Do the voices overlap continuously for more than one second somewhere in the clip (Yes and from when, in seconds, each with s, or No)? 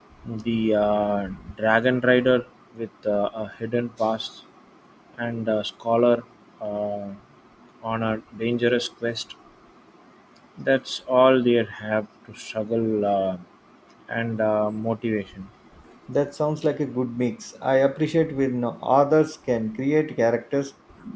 No